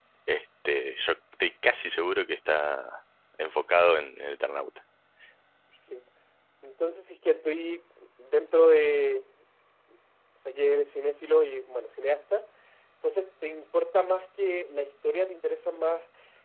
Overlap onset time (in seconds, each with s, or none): none